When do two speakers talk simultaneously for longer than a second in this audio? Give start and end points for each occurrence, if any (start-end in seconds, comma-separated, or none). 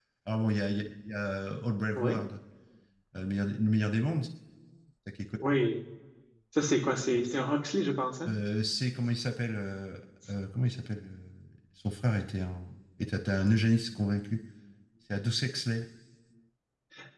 none